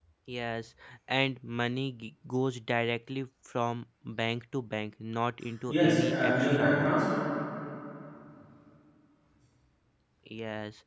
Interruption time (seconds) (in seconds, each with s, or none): 5.7 s